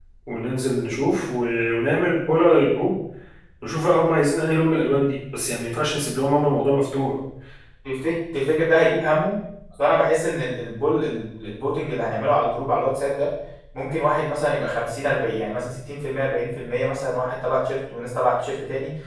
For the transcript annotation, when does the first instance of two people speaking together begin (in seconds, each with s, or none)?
none